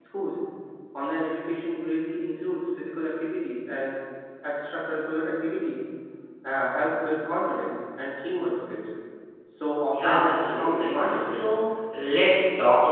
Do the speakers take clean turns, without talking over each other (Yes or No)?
No